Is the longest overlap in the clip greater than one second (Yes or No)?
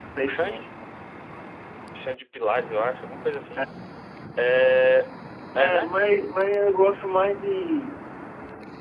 No